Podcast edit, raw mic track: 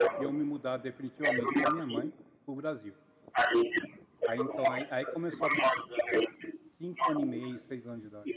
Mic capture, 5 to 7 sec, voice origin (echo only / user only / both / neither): both